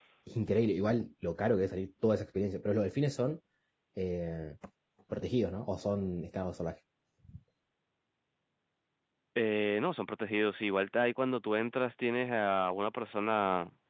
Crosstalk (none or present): none